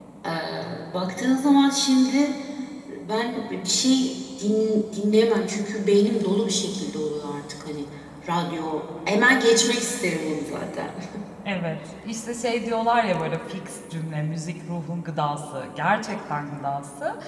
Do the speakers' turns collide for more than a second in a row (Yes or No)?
No